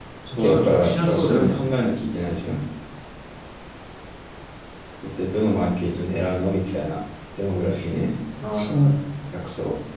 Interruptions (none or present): present